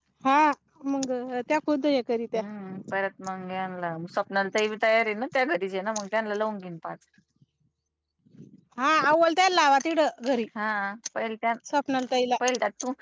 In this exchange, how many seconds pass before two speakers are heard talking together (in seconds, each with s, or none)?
none